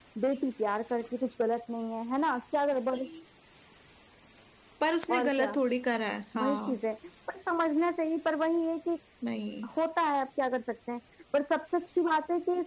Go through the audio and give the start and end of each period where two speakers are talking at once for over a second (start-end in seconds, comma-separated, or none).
none